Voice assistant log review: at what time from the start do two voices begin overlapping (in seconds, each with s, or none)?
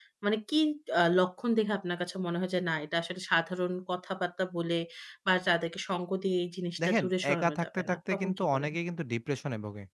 6.8 s